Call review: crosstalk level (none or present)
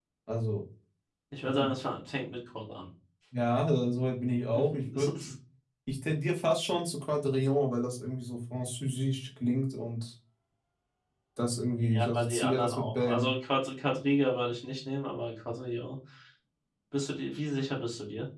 present